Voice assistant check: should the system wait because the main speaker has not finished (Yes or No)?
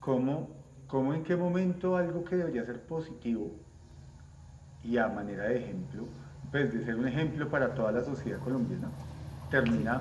Yes